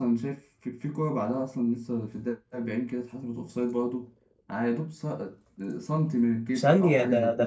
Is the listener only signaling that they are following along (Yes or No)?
No